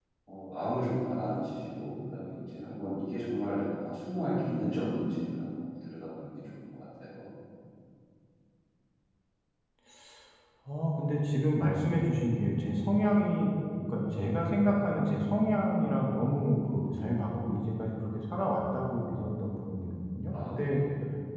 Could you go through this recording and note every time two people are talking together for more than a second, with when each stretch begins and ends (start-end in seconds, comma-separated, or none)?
none